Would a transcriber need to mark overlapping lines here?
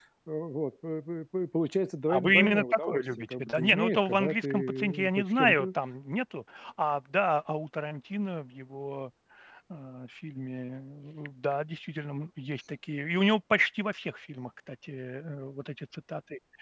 Yes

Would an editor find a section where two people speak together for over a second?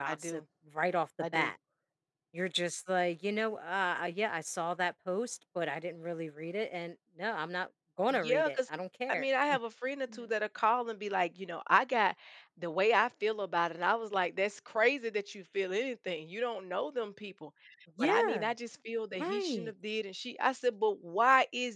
No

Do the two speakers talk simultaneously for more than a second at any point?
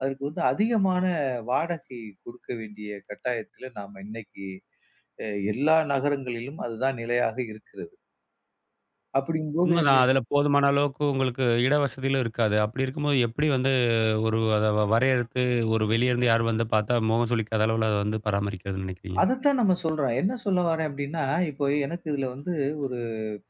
No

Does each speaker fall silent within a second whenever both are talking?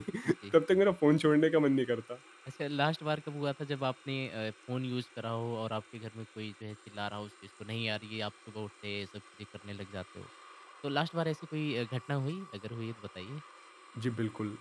Yes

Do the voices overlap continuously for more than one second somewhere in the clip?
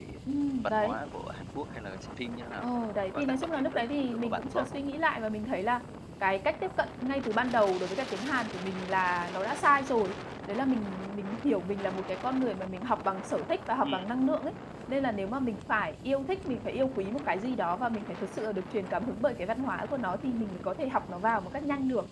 Yes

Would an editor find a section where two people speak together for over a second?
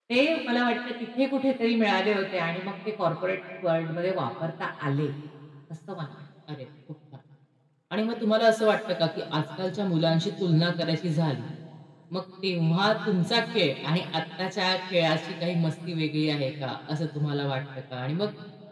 No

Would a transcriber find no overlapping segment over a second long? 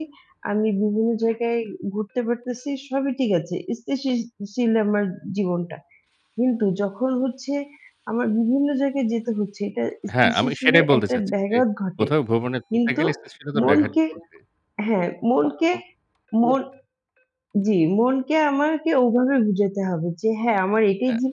No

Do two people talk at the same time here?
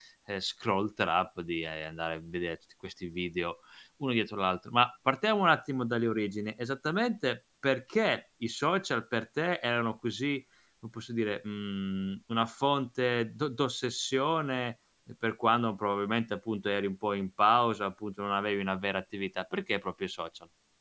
No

